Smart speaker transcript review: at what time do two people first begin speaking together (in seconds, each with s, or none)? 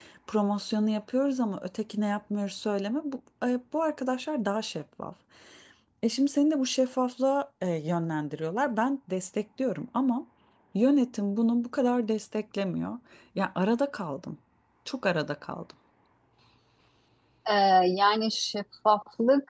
none